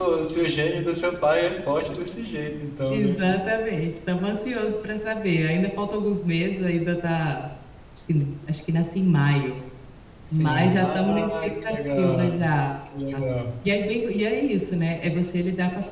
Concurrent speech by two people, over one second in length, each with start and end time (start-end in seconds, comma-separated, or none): 10.4-12.4